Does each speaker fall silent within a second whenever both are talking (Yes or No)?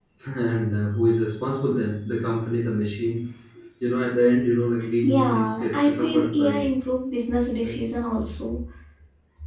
No